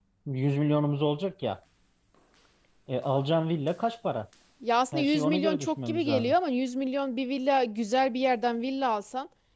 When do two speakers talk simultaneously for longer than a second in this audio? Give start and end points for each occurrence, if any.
4.9-6.3

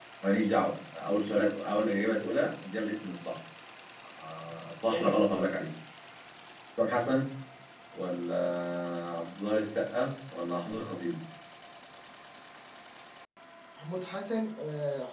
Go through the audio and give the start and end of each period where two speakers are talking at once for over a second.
none

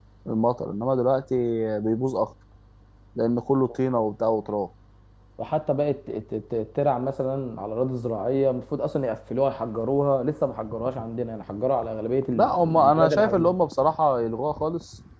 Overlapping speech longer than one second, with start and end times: 12.3-13.6

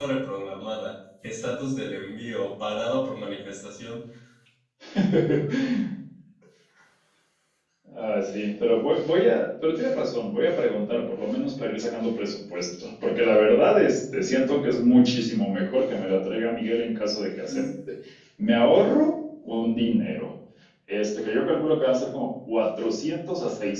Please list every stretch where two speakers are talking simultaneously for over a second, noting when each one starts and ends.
none

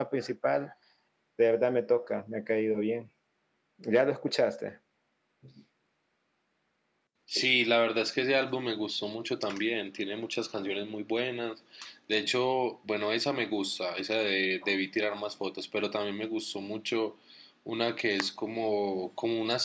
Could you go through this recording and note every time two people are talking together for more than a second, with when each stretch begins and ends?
none

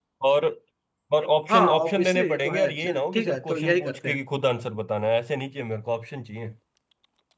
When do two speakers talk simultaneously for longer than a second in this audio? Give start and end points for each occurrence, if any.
1.5-4.2

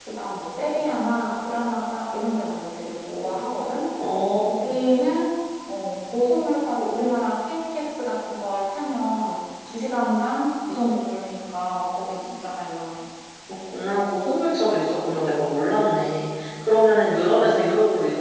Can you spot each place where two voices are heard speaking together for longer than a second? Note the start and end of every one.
none

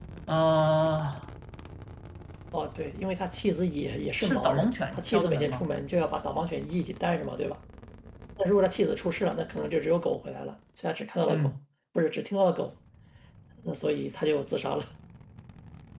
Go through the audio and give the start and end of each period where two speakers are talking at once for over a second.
4.2-5.7

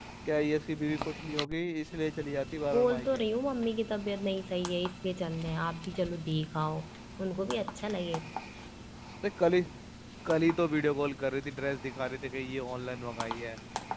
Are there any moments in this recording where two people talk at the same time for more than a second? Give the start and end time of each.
none

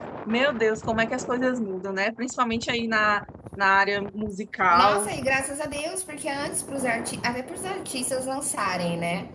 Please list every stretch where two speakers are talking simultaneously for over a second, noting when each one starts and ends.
none

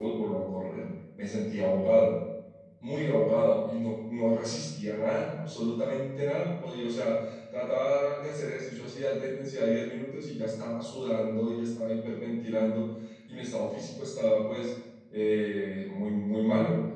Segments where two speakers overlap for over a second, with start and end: none

